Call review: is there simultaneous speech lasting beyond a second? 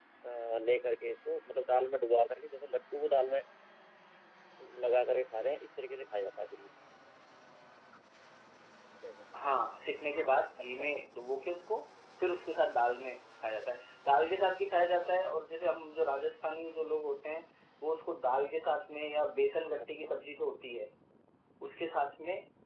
No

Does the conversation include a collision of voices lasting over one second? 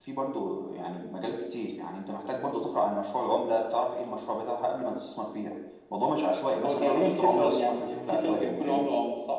Yes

